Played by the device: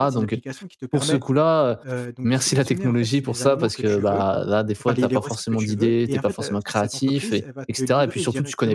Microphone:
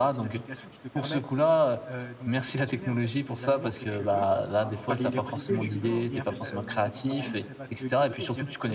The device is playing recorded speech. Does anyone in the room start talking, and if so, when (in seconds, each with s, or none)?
4.5 s